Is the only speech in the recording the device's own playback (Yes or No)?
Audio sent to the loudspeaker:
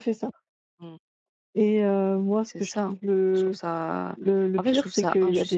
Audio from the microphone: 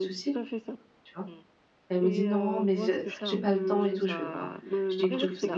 No